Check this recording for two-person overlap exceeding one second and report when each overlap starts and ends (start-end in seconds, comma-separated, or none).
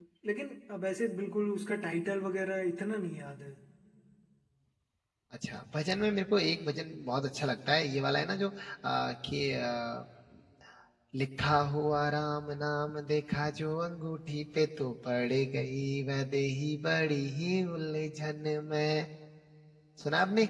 none